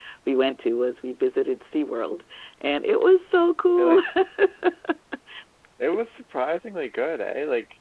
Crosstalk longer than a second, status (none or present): none